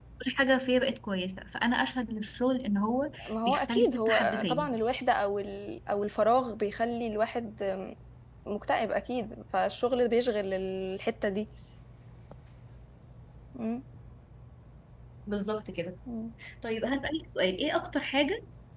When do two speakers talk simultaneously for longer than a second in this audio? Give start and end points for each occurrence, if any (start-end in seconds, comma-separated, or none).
3.2-4.8